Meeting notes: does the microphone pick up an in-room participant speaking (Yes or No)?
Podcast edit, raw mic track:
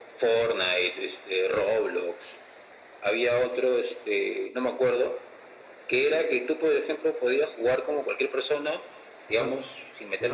Yes